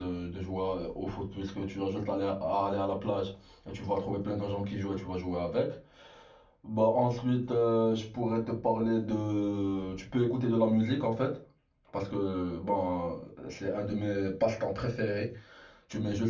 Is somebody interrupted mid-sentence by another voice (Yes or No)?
No